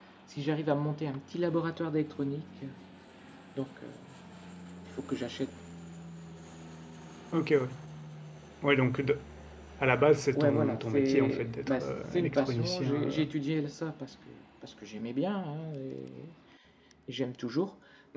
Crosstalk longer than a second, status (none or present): present